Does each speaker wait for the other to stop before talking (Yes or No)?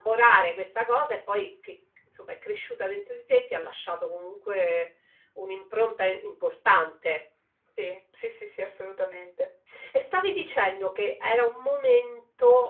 Yes